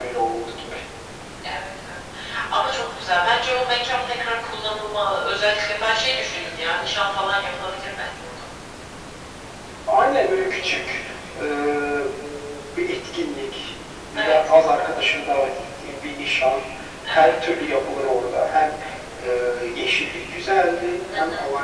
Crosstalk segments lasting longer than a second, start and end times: none

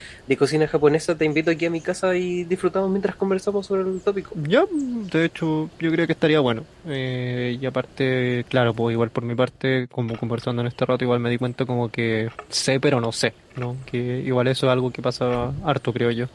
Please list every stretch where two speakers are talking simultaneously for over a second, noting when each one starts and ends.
none

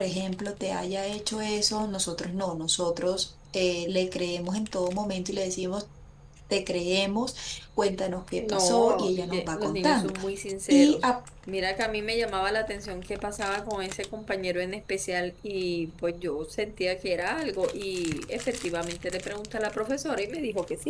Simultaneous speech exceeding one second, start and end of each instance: 8.4-10.1

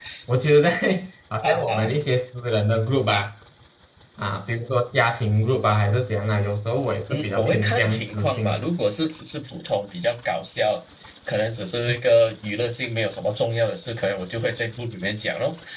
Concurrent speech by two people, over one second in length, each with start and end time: 7.1-8.6

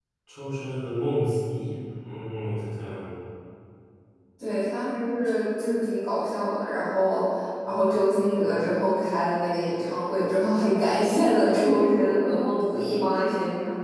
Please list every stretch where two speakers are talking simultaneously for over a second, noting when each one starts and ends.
none

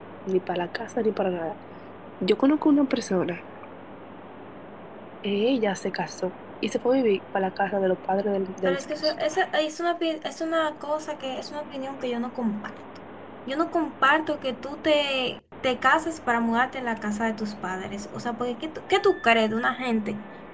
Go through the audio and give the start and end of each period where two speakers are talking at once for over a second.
none

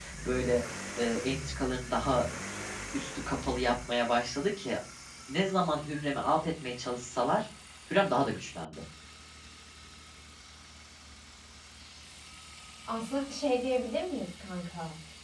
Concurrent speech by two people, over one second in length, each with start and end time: none

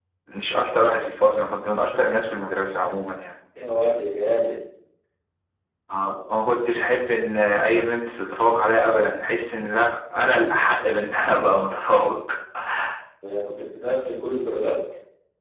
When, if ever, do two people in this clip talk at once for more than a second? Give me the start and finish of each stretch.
none

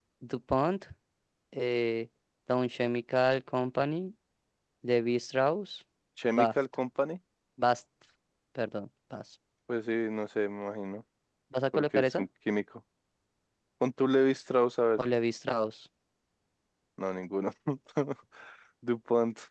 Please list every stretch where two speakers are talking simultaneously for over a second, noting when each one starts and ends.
none

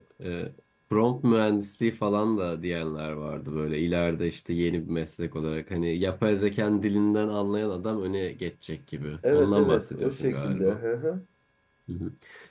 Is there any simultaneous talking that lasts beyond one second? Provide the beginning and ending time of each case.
9.3-10.8

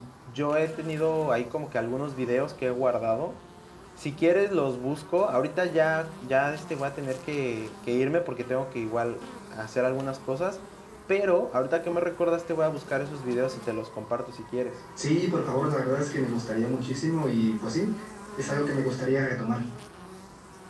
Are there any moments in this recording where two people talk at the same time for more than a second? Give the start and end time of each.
none

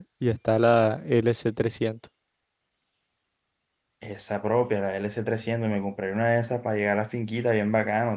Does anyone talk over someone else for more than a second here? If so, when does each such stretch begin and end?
none

